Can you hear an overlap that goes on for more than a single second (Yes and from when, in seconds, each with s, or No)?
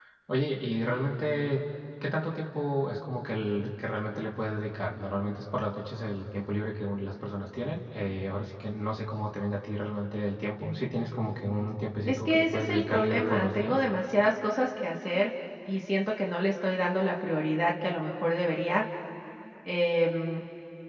Yes, from 12.1 s